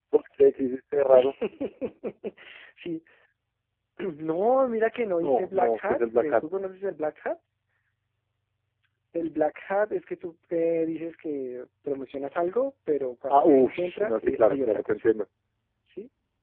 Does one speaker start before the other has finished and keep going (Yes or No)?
Yes